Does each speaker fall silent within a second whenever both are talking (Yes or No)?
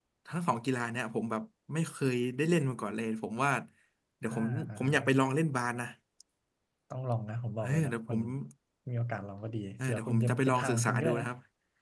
No